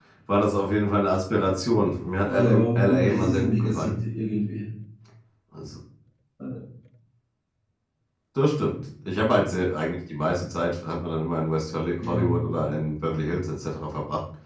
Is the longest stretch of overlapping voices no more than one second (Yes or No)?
No